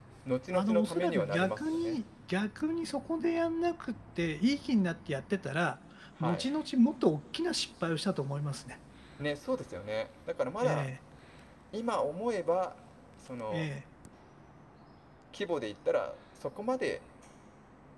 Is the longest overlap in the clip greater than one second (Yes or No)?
Yes